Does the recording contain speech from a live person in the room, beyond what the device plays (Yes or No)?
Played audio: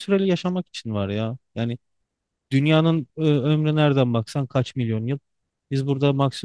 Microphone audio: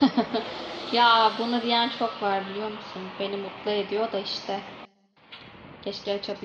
Yes